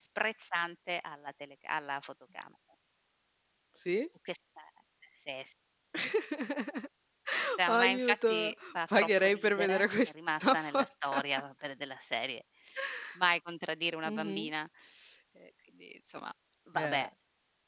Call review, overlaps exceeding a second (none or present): present